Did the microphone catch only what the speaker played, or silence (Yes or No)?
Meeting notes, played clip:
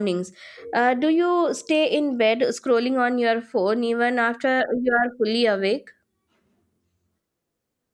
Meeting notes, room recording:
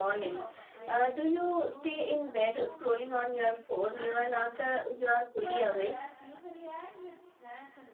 No